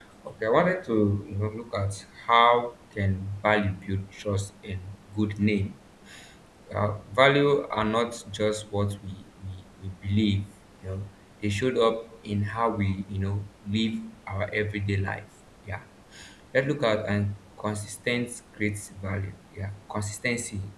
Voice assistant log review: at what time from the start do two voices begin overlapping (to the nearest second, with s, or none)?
none